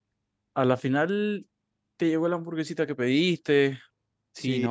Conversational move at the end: taking over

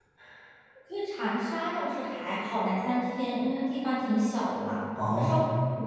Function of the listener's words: listening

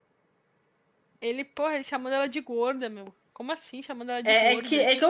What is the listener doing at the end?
taking over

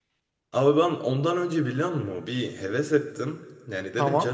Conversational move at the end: listening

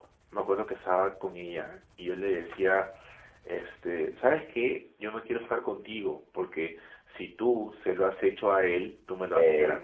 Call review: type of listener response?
taking over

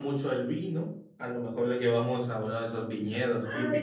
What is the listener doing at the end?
taking over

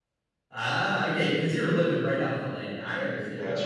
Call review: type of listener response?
taking over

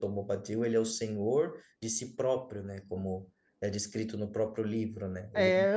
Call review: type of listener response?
taking over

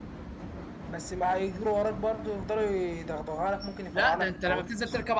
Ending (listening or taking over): taking over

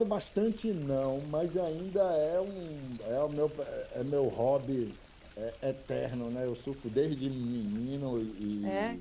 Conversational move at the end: listening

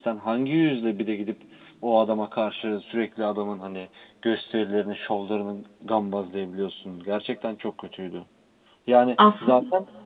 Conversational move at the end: listening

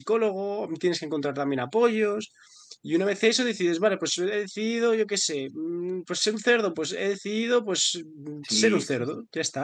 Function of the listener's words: taking over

